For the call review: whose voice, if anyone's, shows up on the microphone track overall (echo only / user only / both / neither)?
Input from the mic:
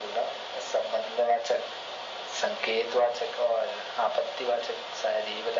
echo only